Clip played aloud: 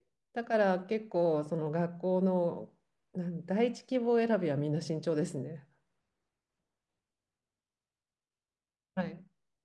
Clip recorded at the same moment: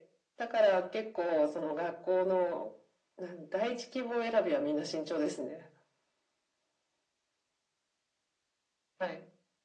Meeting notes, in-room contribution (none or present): none